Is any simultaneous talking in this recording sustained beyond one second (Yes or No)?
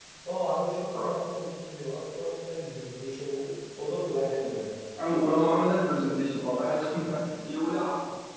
No